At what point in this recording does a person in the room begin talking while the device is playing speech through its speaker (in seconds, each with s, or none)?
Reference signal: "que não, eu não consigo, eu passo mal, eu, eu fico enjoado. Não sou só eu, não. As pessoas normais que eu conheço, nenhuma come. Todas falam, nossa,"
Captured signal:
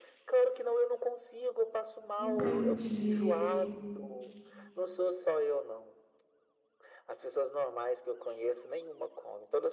2.2 s